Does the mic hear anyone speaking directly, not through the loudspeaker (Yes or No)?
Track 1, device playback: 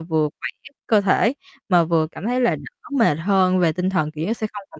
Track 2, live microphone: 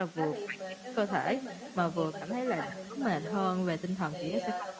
Yes